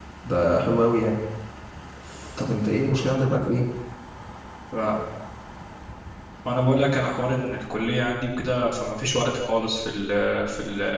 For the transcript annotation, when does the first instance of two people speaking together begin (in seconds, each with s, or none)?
none